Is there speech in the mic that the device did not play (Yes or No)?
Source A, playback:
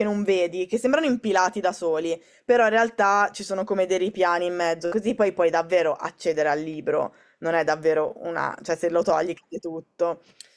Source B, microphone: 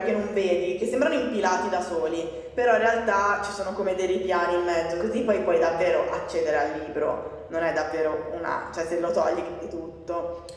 No